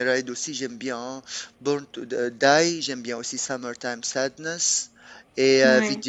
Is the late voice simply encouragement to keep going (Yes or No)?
Yes